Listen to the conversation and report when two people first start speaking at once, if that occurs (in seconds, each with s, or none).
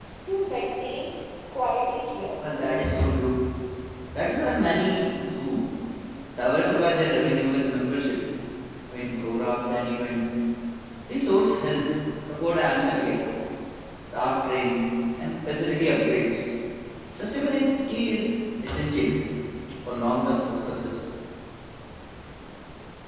none